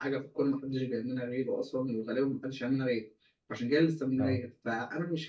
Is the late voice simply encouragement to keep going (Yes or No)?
Yes